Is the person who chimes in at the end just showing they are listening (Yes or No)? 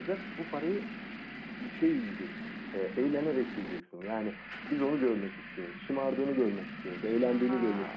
No